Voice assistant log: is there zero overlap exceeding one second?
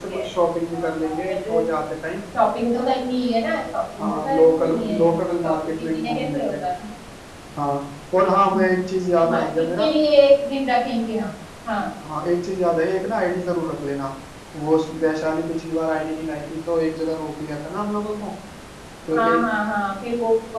No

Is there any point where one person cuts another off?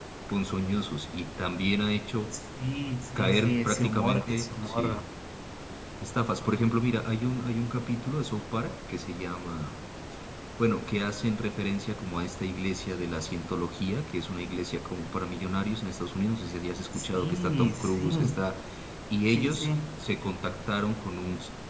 Yes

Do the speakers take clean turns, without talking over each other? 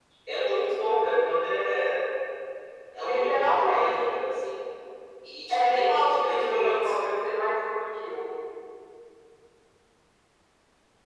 No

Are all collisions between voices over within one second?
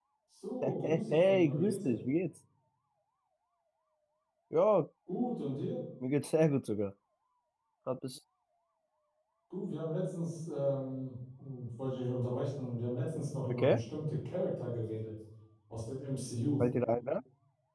No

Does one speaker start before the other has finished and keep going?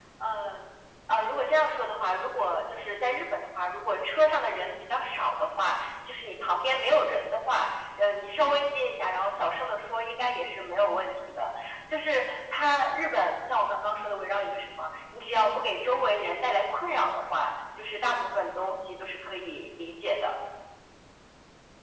No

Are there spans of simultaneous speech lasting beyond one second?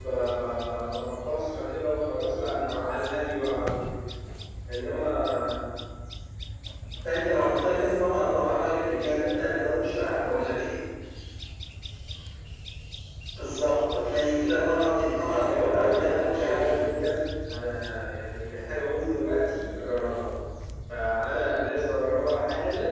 Yes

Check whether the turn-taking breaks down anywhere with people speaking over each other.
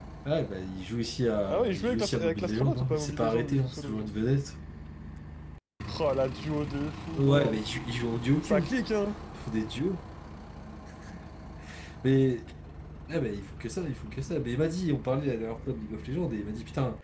Yes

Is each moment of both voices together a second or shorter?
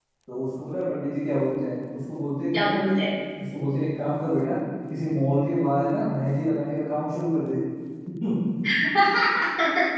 Yes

